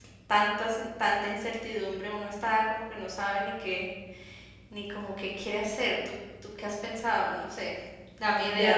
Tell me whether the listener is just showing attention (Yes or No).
No